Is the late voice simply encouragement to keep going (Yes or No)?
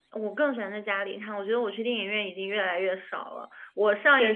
Yes